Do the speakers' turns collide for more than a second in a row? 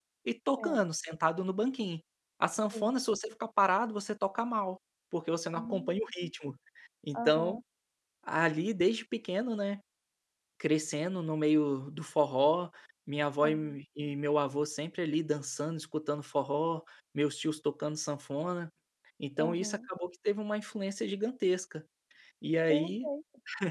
No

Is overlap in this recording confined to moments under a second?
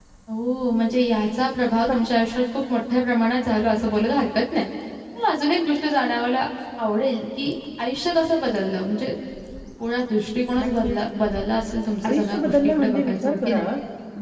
No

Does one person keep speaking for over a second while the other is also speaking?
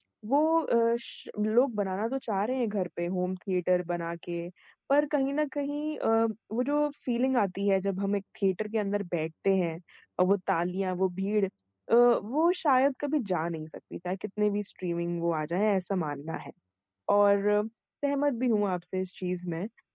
No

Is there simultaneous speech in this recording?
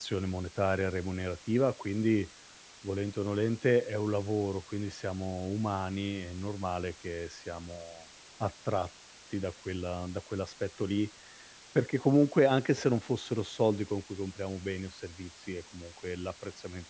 No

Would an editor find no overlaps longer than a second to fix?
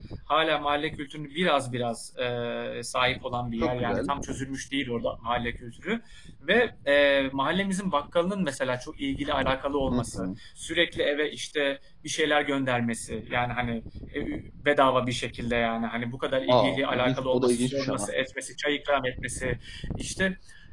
No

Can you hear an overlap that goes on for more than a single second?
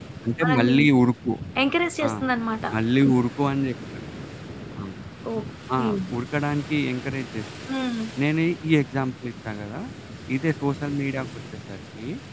No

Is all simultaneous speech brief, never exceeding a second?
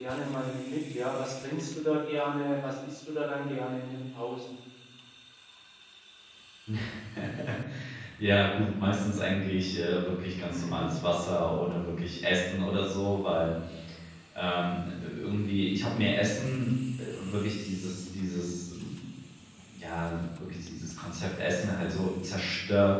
Yes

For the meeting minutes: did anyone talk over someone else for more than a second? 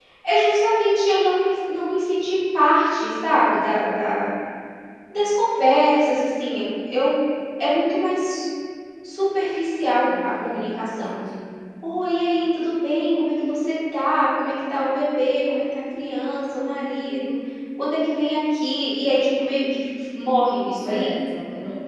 No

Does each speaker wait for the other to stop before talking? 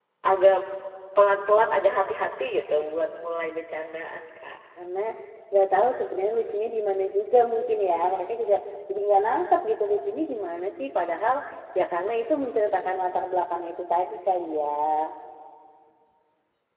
Yes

